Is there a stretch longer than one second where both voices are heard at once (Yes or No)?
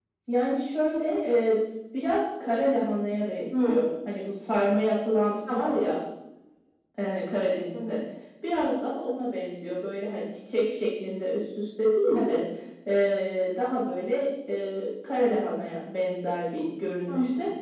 No